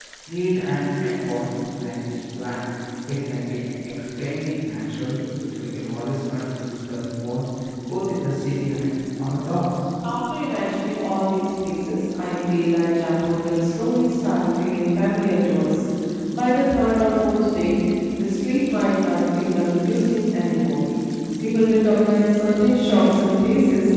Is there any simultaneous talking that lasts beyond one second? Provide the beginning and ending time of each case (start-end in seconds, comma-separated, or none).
none